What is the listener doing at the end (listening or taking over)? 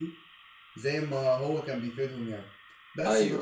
listening